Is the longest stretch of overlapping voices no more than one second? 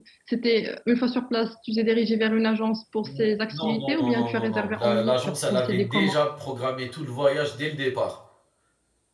No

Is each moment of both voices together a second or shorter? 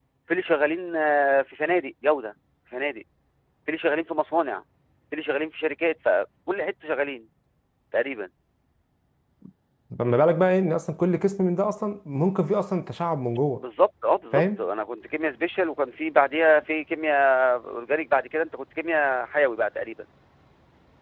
Yes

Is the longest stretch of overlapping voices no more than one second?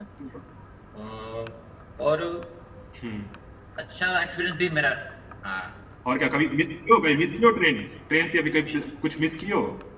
Yes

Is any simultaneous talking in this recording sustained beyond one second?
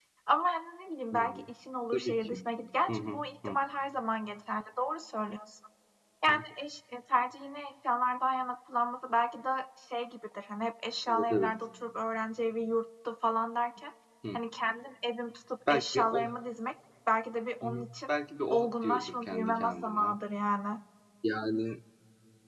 Yes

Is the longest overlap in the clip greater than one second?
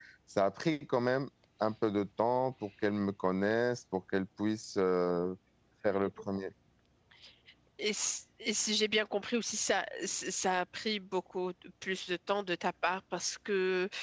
No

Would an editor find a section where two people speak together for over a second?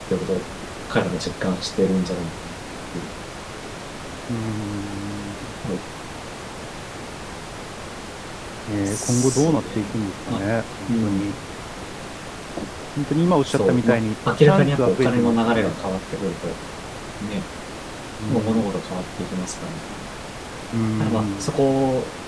Yes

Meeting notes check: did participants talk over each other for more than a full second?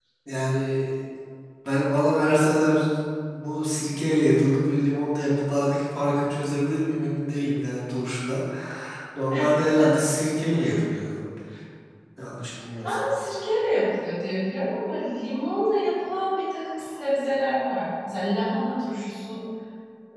No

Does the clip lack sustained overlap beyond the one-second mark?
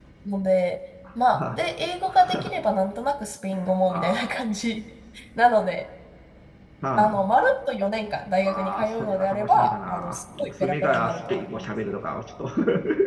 No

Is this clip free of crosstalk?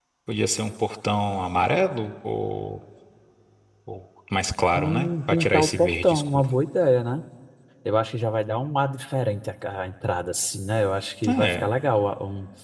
No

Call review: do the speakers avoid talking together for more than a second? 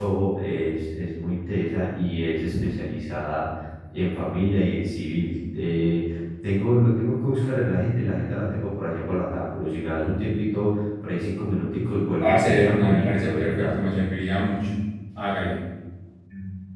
No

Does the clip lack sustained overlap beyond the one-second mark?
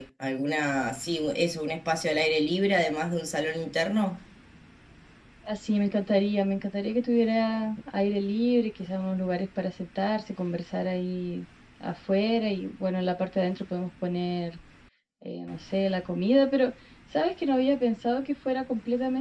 Yes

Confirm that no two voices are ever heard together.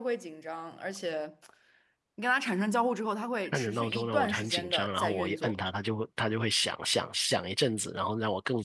No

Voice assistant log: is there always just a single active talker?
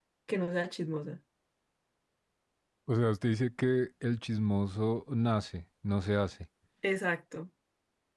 Yes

